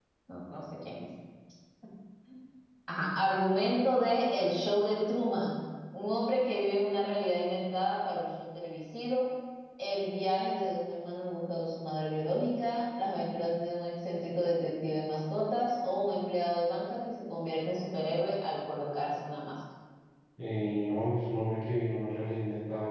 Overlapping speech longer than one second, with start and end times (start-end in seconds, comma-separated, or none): none